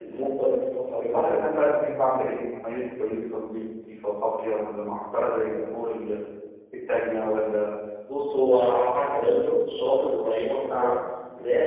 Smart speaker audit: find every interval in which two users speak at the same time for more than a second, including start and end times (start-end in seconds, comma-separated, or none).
none